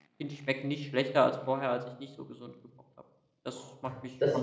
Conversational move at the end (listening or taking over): taking over